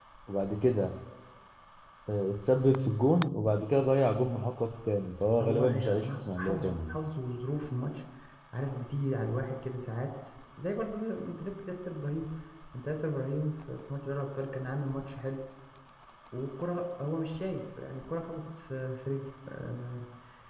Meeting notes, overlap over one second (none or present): present